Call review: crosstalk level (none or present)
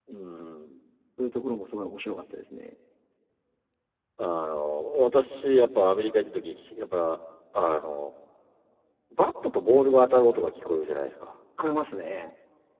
none